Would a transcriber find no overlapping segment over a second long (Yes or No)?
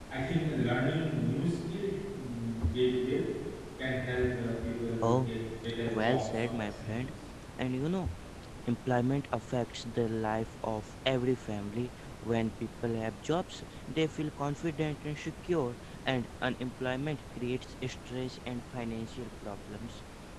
No